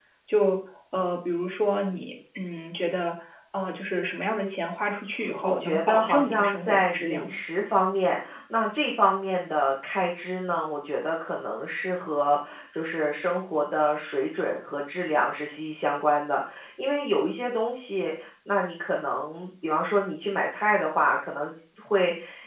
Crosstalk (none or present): present